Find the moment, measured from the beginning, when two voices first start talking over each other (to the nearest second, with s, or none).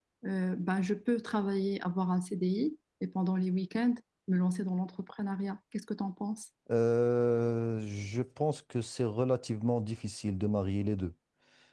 none